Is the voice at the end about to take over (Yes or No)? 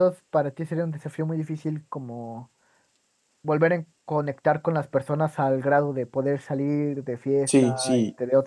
Yes